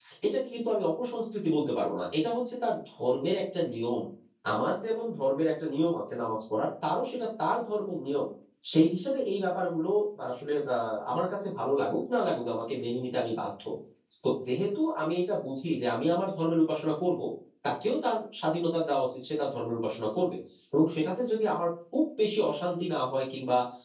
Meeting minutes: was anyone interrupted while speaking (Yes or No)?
No